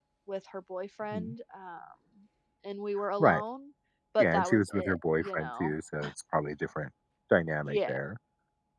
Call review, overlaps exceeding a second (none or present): present